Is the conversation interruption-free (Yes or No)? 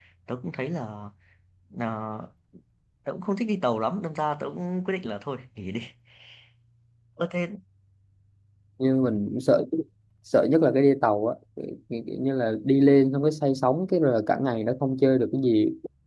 Yes